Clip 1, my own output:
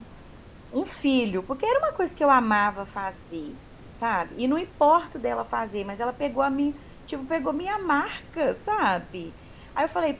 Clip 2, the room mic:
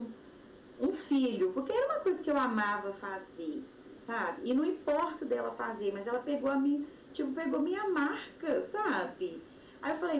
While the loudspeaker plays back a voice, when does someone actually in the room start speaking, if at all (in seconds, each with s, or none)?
none